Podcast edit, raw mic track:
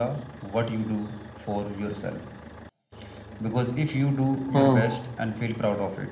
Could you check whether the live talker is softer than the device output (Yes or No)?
No